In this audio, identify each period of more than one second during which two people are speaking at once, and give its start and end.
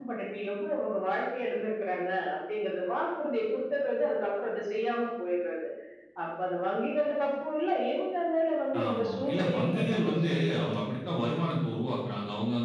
8.8-10.4

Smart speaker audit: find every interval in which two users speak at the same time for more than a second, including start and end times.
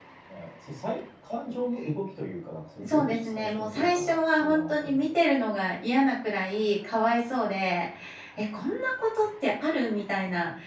2.8-5.0

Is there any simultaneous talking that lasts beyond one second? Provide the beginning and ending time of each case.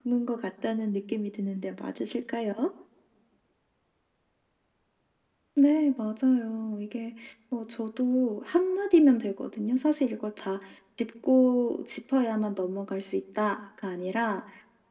none

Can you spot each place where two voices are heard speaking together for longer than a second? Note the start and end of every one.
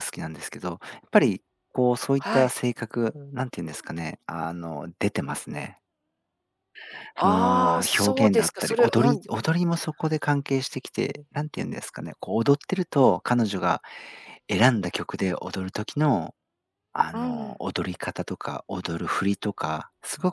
7.2-9.2

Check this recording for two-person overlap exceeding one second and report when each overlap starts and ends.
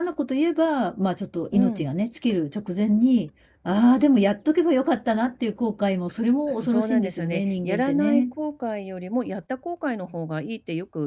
6.5-8.3

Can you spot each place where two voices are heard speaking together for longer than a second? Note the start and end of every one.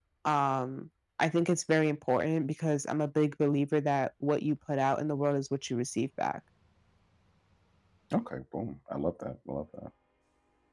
none

